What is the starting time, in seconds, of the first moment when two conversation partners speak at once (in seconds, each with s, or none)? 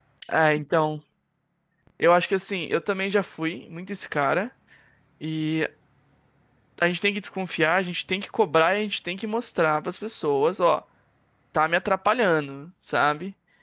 none